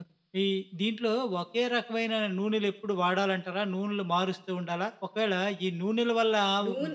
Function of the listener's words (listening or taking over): listening